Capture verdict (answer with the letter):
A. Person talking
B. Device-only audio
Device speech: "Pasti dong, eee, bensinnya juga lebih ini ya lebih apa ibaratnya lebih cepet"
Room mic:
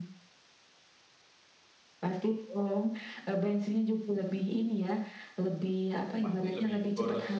A